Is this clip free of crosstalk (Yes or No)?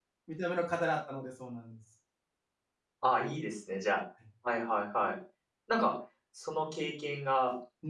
Yes